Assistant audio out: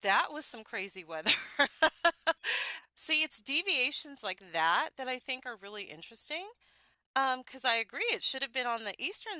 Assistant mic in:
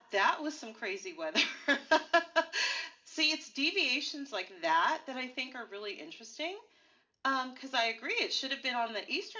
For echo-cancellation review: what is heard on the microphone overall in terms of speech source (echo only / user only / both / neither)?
echo only